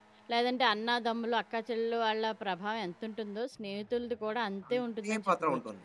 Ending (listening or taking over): taking over